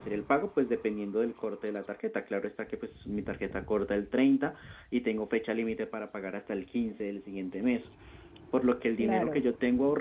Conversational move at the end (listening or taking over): listening